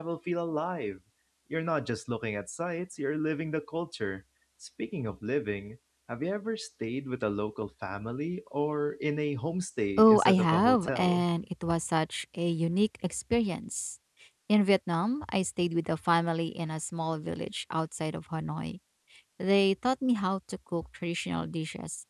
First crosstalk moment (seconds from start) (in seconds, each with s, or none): 10.0 s